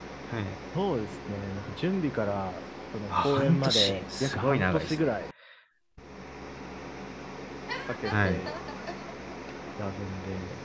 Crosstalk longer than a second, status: present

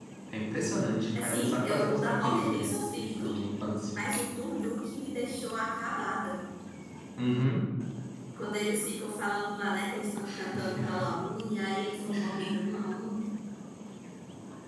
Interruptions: present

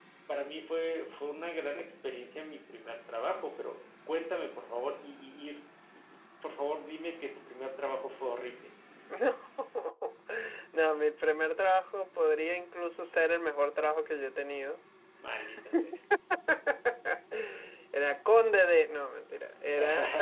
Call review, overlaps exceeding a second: none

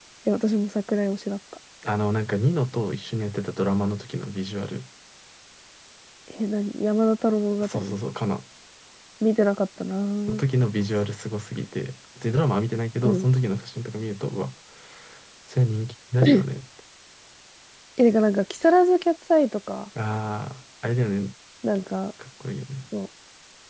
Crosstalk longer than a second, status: none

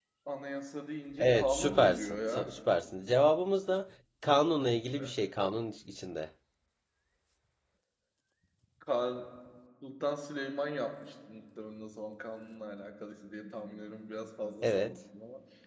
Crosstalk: present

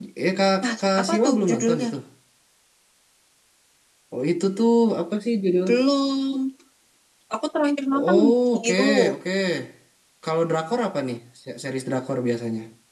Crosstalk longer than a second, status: present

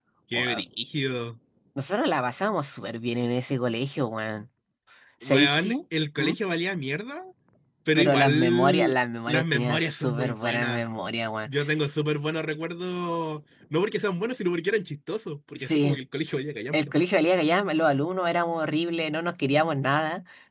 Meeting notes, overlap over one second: present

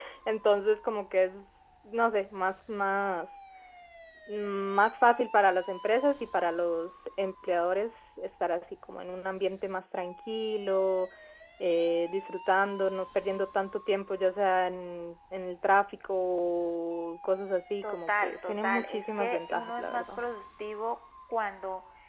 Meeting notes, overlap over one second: present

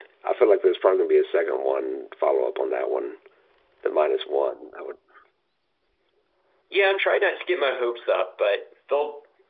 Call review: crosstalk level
none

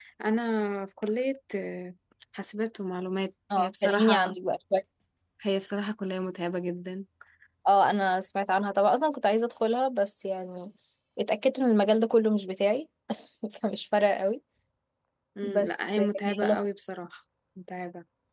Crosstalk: present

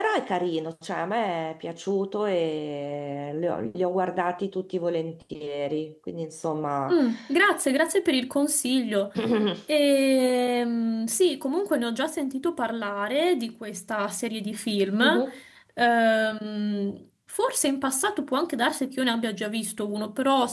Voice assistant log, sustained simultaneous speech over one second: none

